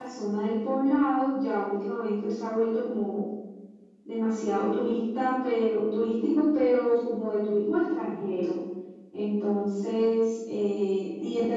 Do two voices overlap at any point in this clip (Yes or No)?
No